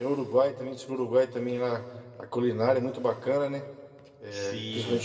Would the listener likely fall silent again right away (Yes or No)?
No